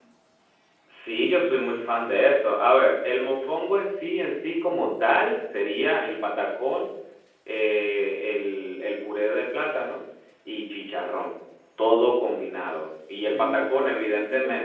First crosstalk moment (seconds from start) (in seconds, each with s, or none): 13.2 s